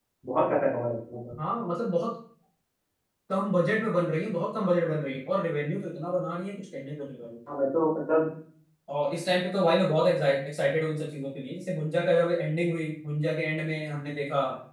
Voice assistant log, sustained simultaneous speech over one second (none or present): none